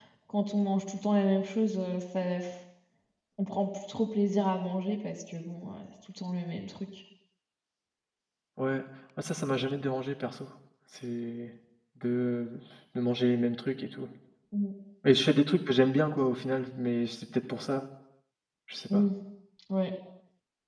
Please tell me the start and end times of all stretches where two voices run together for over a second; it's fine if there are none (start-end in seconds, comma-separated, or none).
none